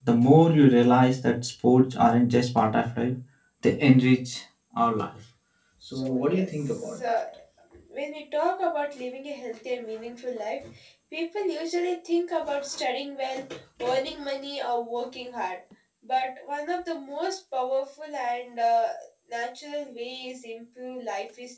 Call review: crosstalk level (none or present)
present